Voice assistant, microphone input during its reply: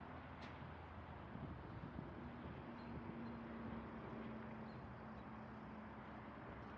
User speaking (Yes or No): No